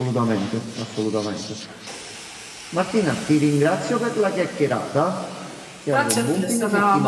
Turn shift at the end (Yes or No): Yes